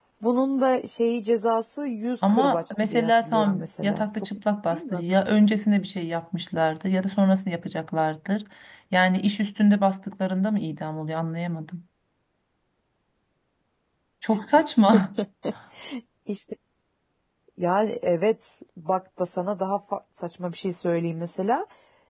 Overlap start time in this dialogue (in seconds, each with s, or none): 2.3 s